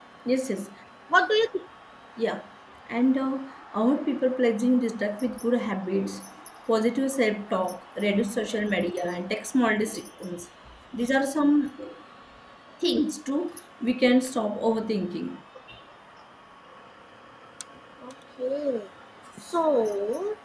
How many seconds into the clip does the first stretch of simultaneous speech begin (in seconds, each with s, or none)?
none